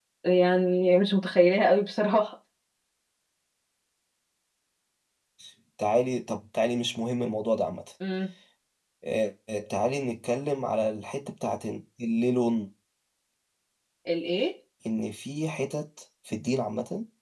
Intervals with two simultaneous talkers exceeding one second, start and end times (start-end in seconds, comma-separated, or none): none